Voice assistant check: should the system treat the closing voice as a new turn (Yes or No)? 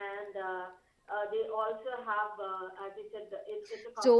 Yes